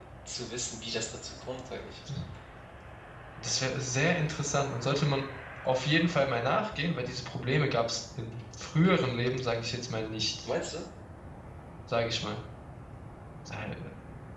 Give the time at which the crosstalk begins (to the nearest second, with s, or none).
none